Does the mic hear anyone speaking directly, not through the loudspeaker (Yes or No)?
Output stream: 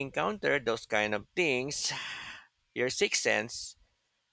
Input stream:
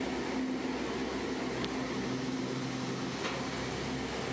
No